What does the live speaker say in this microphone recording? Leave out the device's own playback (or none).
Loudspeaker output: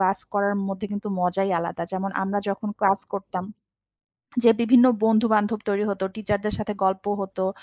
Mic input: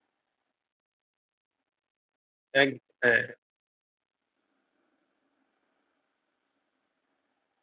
এগ হ্যাঁ।